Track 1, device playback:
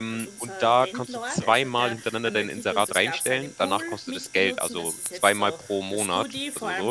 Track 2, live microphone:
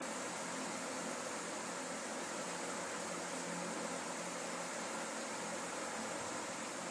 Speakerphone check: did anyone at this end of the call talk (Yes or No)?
No